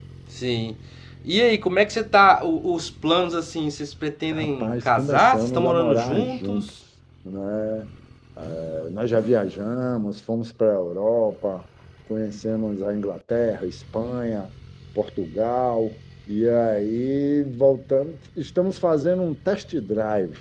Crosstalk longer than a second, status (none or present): present